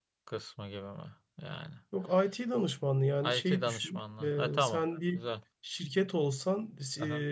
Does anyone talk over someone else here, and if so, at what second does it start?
3.2 s

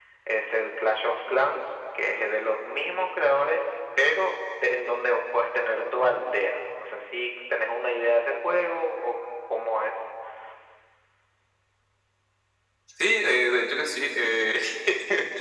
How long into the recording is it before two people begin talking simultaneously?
none

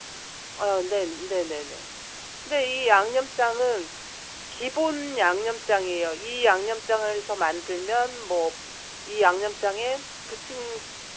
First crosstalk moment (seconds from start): none

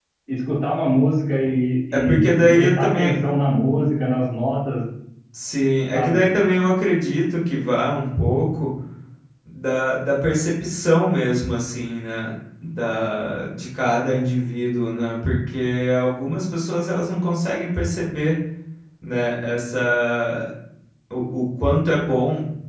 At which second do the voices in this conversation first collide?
1.9 s

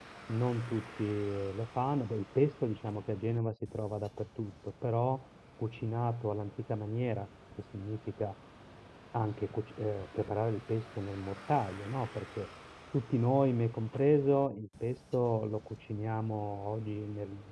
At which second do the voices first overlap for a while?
none

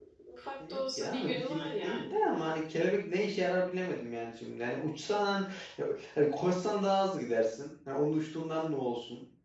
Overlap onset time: 0.7 s

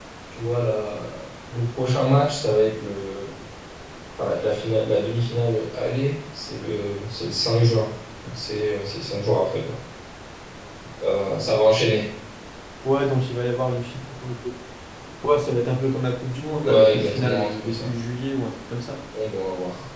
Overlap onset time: 16.6 s

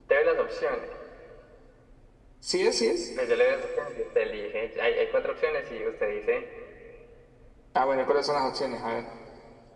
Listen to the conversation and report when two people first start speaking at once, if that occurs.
none

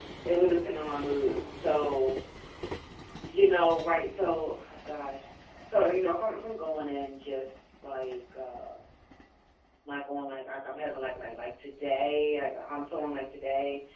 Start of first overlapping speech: none

